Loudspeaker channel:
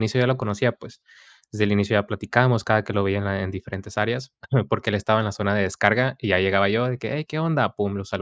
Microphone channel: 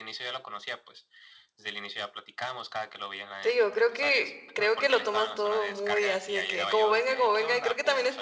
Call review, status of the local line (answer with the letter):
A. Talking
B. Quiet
A